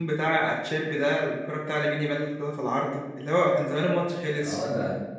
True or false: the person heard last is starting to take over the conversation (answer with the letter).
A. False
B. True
B